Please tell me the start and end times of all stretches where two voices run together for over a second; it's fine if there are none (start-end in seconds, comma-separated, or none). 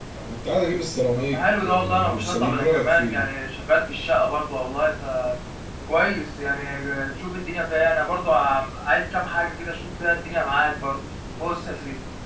1.2-3.3